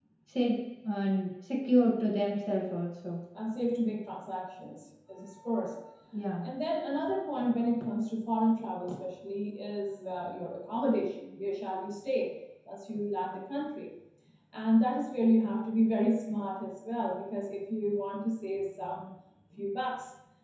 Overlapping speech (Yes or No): No